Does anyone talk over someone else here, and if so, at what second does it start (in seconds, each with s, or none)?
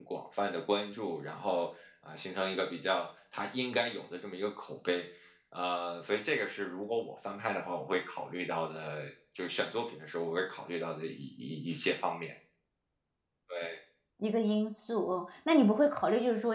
none